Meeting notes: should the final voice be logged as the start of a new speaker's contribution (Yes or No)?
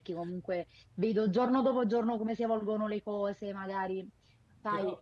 No